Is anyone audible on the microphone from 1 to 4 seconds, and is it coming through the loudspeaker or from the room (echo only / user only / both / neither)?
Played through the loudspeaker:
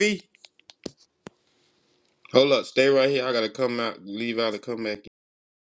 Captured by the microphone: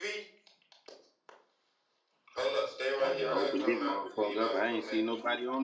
both